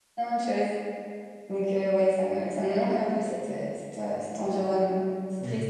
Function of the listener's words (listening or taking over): taking over